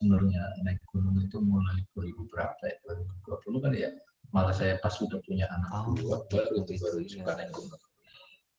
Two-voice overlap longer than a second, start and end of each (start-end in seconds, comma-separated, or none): 5.9-7.6